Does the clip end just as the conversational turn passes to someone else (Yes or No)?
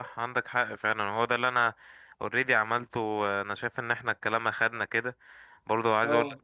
No